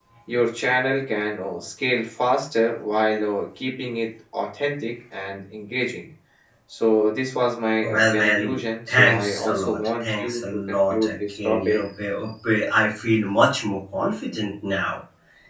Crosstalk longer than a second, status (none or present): present